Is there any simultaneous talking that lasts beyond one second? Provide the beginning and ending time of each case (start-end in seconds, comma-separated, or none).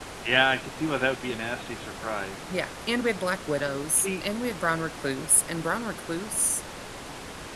none